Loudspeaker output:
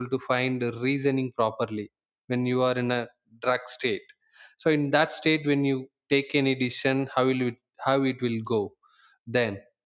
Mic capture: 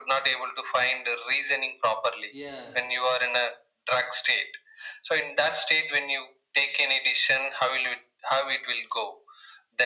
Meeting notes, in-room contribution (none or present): present